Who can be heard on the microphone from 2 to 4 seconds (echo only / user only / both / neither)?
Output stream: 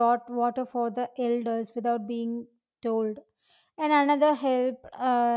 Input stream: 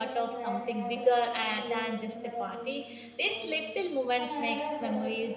both